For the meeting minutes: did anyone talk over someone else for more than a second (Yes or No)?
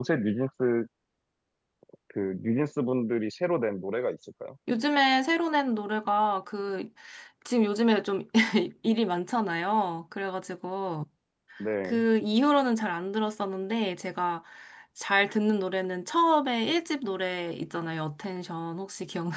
No